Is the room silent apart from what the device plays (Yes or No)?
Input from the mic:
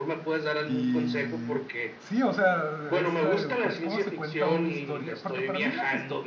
No